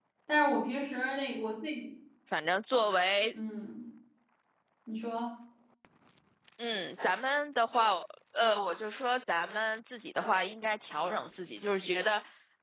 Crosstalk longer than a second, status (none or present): none